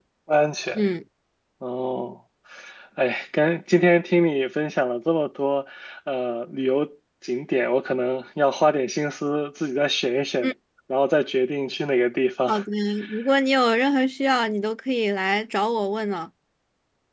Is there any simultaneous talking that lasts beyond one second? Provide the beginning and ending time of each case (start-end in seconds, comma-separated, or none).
none